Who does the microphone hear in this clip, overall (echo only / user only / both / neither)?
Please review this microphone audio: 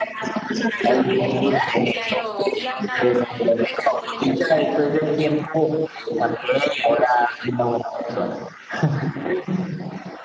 both